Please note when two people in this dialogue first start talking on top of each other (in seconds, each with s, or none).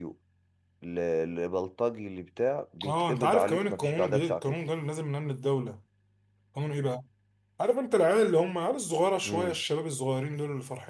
2.9 s